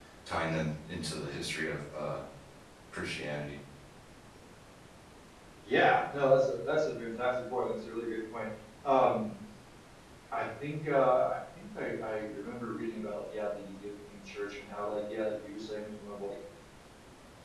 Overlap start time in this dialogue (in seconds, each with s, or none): none